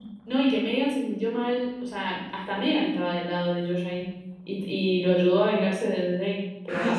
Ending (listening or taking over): taking over